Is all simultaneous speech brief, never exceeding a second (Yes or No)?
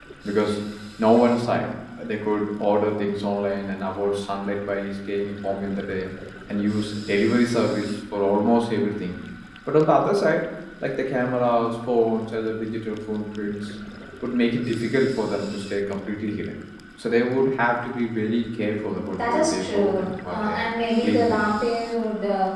No